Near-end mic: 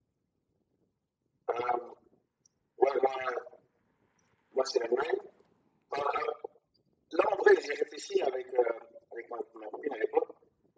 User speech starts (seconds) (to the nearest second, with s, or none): none